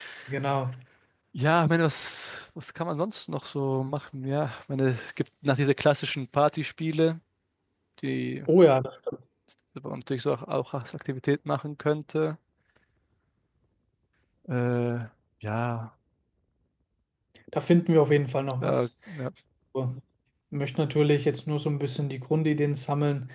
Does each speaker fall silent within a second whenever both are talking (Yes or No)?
Yes